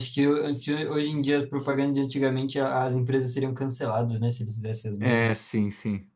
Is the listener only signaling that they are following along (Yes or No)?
No